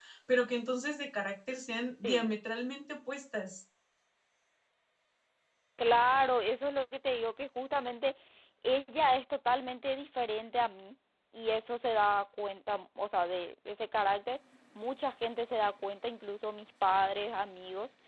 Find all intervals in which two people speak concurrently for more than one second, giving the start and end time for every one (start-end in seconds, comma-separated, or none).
none